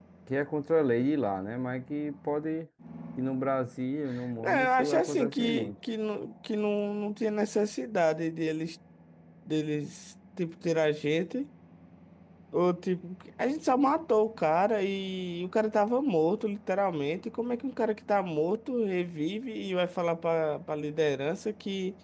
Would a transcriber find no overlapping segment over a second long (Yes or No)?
No